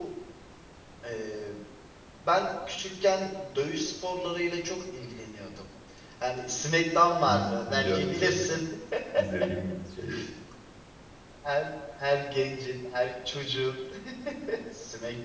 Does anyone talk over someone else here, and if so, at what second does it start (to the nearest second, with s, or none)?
7 s